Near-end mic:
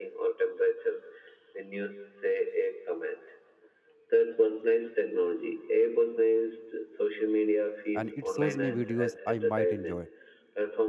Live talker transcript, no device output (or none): and it shows me videos i might enjoy